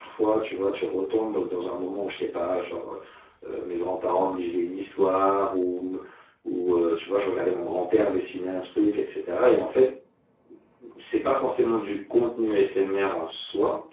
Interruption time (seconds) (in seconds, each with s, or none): none